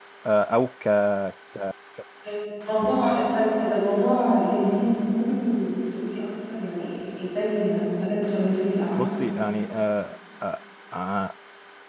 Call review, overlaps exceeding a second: none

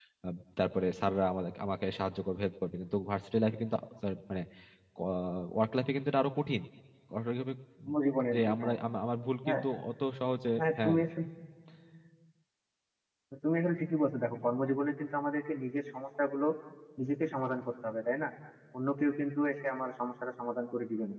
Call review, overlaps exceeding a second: none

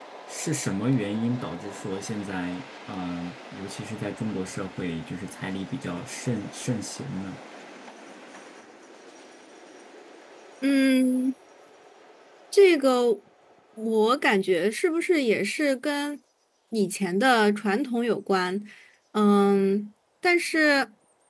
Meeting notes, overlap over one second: none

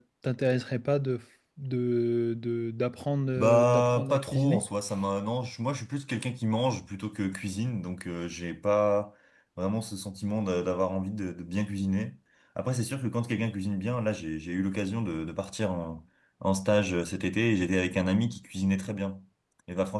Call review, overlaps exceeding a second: present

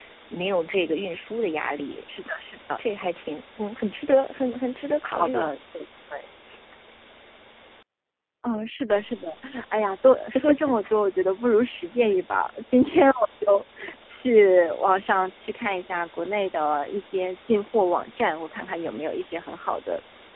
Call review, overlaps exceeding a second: none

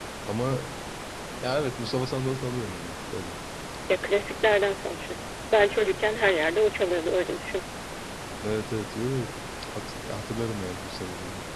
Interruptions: none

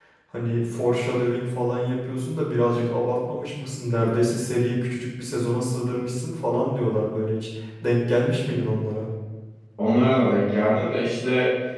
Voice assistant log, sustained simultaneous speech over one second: none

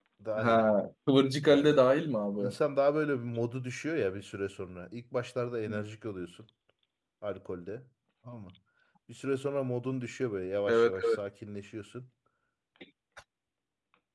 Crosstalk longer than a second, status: none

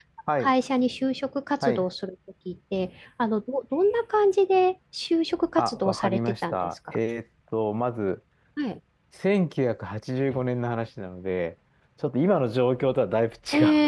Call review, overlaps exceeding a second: present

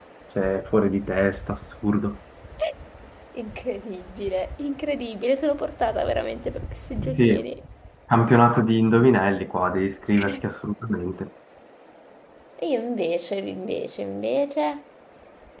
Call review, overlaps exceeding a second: none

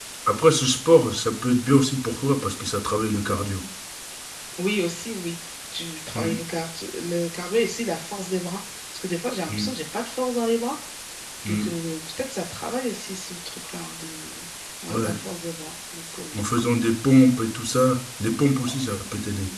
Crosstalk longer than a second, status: none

